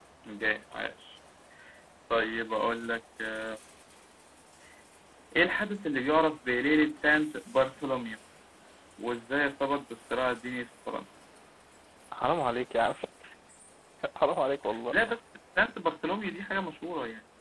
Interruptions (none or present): none